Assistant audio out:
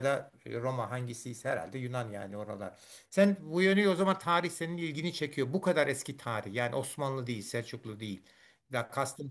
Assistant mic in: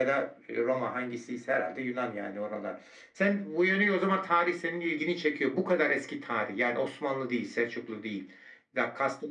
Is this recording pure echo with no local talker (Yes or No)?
Yes